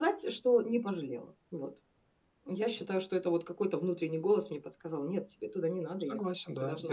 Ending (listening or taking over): taking over